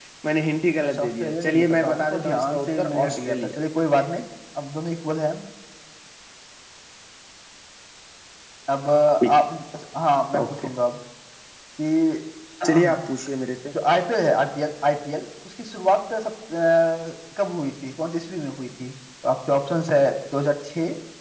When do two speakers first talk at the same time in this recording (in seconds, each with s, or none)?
0.8 s